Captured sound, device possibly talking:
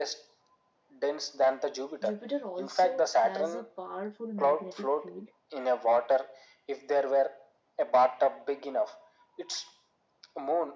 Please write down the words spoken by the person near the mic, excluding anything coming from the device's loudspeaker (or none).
Jupiter also has a powerful magnetic field